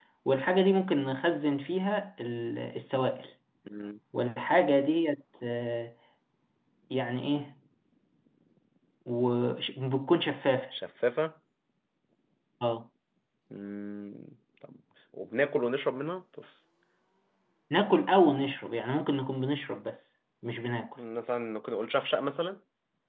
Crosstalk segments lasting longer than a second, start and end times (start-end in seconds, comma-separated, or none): none